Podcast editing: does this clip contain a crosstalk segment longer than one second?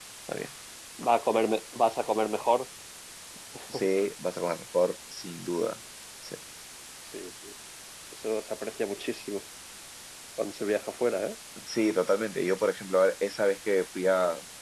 No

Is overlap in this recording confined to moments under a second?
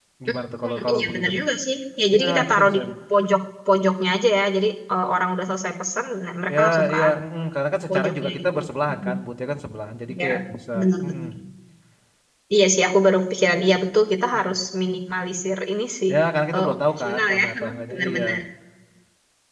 No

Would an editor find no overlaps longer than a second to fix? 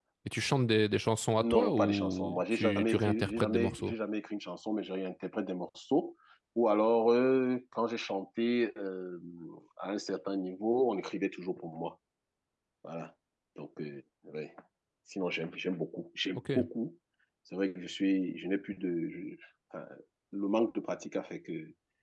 No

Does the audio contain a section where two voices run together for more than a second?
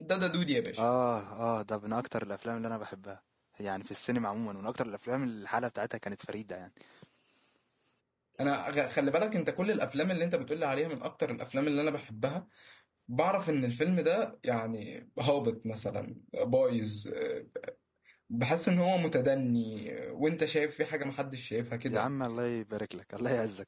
No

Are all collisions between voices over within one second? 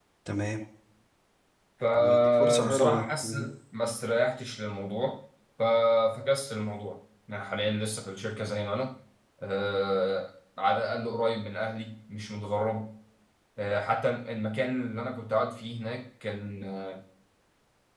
No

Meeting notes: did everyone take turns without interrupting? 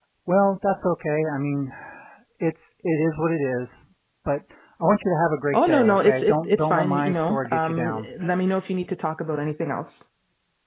No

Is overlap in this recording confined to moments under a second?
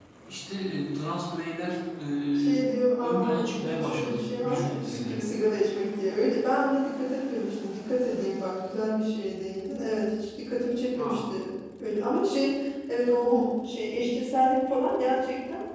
No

